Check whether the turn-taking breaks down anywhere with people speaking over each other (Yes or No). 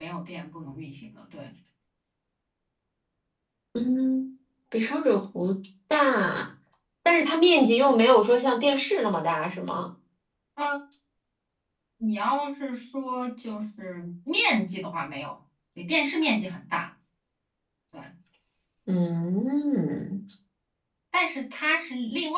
No